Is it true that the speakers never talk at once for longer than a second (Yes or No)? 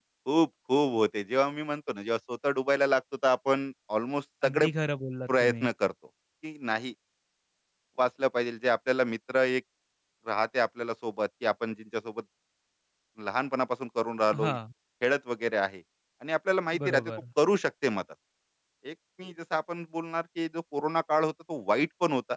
Yes